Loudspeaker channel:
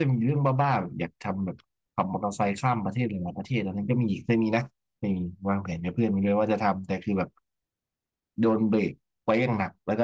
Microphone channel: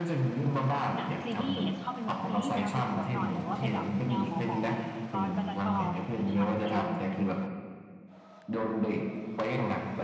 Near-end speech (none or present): present